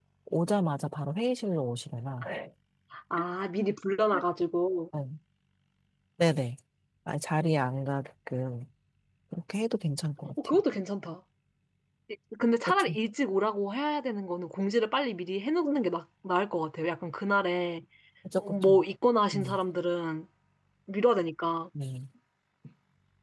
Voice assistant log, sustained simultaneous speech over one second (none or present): none